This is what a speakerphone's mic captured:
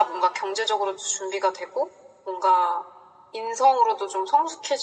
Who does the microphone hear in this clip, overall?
echo only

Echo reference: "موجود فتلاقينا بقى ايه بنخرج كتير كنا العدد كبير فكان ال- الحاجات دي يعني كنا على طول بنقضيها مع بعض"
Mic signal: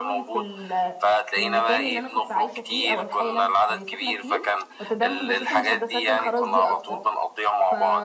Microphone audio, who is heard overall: both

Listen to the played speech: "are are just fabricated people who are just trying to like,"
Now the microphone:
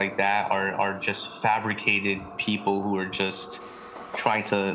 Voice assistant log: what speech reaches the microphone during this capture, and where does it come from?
echo only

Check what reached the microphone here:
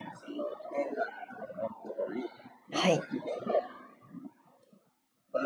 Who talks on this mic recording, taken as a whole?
both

